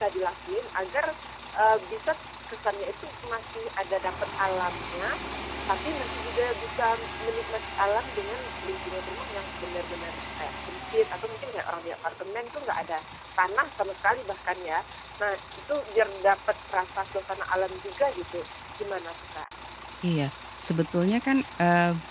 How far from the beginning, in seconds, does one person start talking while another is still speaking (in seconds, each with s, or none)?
none